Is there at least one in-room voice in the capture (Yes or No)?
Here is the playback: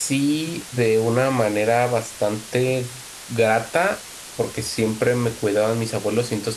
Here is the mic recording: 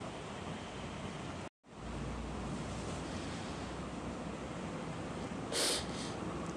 No